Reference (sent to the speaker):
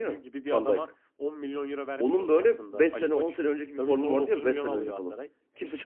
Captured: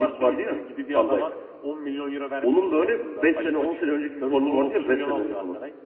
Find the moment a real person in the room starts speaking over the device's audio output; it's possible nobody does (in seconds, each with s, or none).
none